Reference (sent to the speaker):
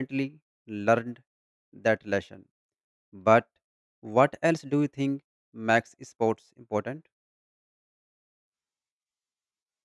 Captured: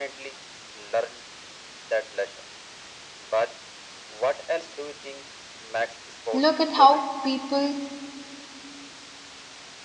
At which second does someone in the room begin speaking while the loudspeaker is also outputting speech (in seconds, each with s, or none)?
6.3 s